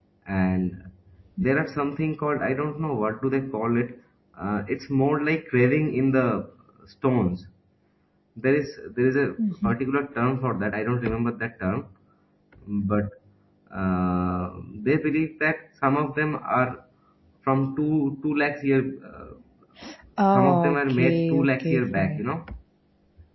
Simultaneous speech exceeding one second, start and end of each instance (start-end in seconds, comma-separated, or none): 20.3-22.2